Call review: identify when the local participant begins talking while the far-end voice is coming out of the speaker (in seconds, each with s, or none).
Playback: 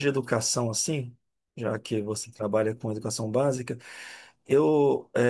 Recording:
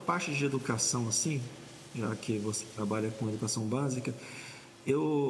none